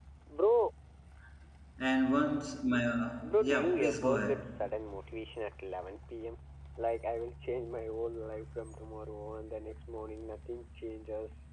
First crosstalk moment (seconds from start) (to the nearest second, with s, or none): 3 s